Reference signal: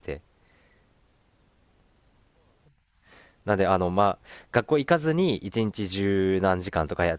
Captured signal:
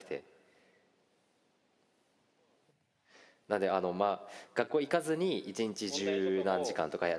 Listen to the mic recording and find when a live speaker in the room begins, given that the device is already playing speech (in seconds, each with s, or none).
5.9 s